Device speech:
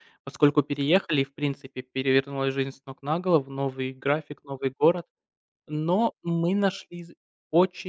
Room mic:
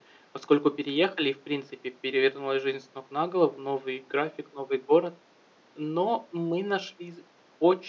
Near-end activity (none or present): none